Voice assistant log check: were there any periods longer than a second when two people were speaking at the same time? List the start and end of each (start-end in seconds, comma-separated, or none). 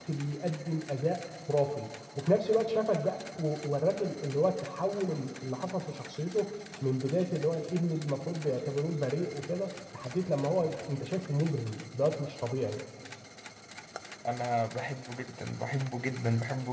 none